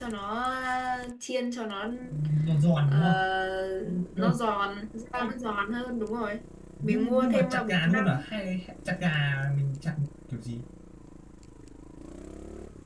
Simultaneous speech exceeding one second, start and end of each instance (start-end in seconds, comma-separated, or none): 6.8-8.2